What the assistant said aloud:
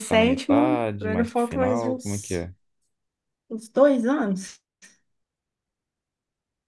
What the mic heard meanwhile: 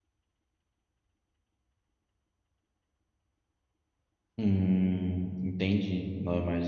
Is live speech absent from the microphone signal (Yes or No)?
No